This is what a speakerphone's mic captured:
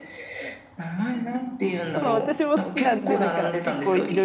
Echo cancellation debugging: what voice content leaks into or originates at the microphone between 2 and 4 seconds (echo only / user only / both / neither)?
both